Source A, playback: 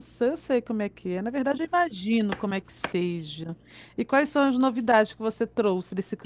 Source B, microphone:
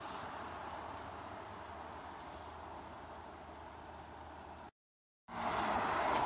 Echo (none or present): none